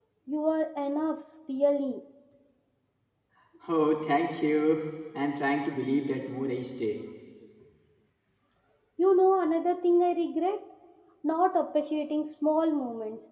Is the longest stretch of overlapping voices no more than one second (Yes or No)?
Yes